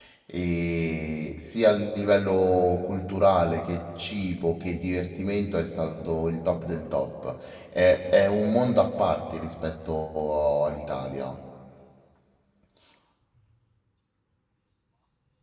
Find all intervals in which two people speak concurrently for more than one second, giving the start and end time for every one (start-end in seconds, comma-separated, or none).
none